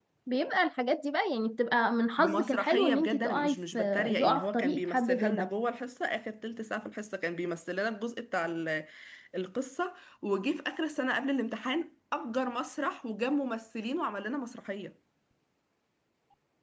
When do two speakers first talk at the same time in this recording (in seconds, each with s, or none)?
2.2 s